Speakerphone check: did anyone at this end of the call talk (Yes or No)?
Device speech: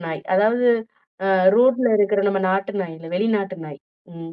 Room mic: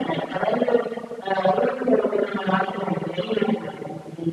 No